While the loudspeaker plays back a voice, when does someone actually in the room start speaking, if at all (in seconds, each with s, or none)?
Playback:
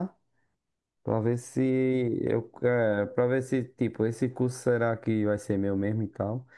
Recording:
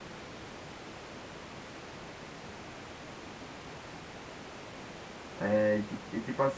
5.3 s